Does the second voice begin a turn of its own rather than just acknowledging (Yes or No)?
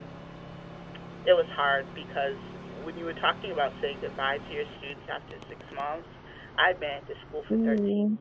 No